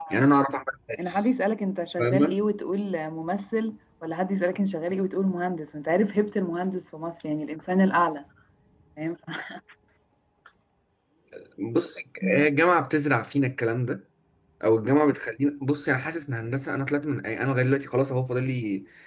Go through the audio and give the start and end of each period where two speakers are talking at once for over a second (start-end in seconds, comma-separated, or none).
none